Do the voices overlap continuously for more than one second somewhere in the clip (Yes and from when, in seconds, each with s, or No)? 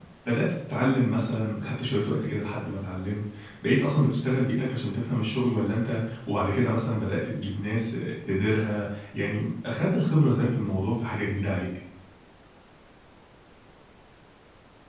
No